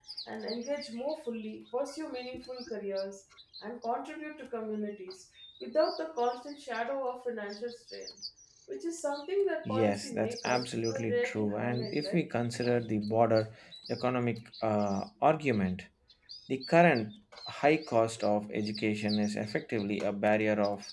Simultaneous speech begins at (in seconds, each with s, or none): 9.7 s